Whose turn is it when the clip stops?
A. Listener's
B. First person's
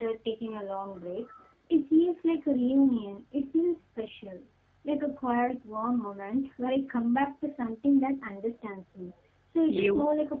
B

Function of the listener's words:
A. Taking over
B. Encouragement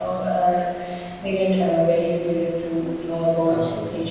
B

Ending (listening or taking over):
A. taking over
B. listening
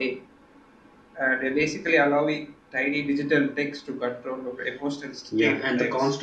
A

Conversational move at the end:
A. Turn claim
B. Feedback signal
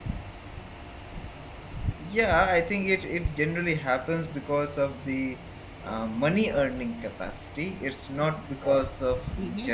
A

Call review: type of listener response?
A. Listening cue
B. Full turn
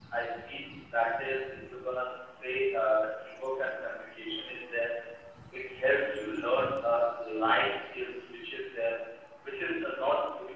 A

